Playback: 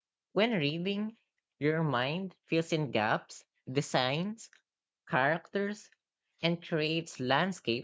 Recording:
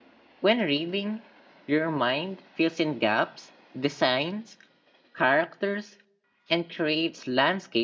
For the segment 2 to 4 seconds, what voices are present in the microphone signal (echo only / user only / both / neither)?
echo only